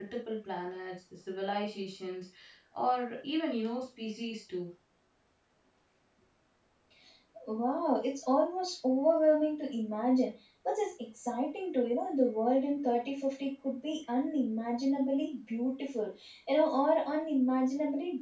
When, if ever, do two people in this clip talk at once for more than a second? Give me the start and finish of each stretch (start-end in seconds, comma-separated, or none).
none